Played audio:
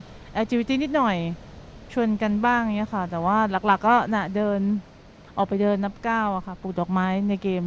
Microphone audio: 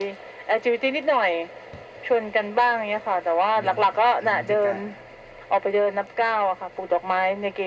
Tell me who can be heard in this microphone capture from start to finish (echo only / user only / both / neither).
both